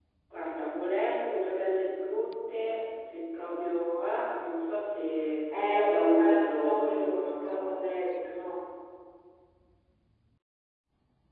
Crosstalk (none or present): present